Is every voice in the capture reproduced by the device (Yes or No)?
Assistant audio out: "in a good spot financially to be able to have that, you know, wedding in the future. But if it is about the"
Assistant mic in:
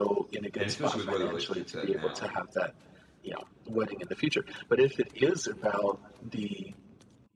No